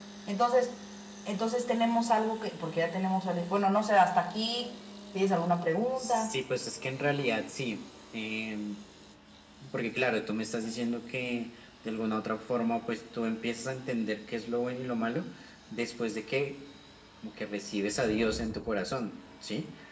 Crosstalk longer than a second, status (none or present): none